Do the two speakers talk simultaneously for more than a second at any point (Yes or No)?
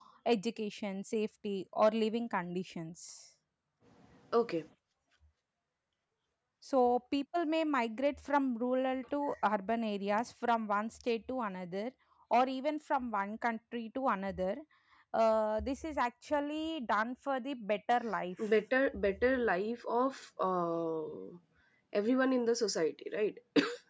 No